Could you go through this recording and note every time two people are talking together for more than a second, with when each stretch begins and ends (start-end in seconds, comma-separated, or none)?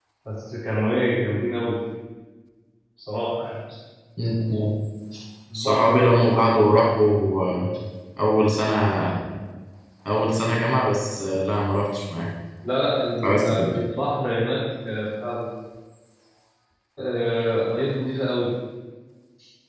none